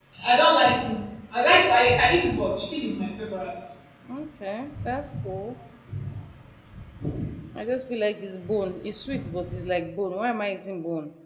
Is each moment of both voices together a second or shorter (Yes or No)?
Yes